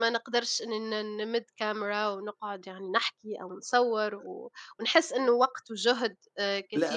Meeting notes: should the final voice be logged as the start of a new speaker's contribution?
Yes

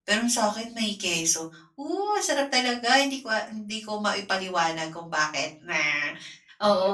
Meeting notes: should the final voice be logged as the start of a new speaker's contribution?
Yes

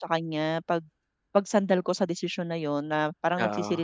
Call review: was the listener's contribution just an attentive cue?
Yes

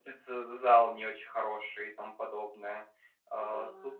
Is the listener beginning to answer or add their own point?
No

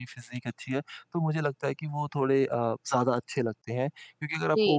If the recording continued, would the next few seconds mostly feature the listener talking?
No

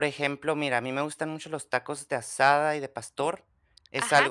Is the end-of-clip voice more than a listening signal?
Yes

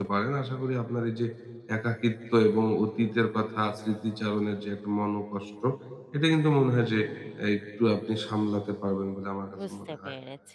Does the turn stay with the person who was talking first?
No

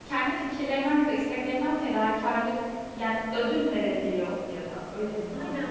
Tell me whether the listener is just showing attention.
No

